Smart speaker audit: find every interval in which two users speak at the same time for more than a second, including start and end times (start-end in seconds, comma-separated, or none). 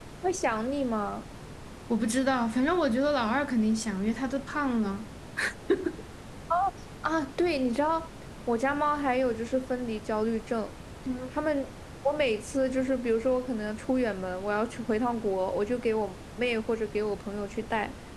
none